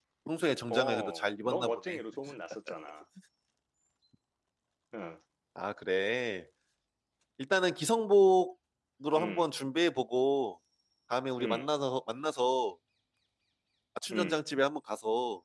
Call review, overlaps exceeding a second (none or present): present